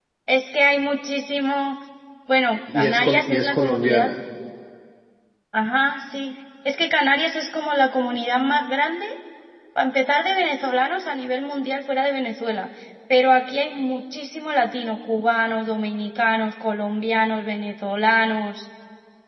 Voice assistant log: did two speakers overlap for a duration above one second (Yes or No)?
Yes